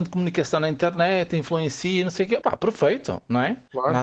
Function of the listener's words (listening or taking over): listening